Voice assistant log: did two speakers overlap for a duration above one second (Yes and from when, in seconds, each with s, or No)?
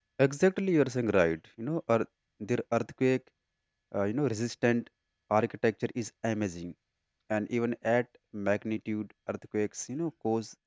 No